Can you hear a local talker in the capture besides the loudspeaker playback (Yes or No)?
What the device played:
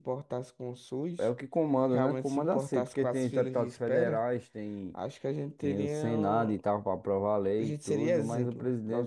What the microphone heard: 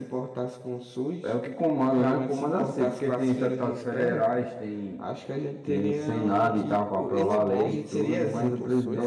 Yes